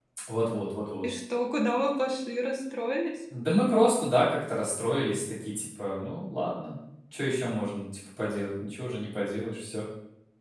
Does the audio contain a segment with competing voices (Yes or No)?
No